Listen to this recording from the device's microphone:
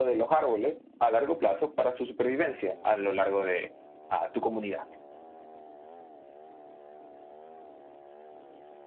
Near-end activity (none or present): none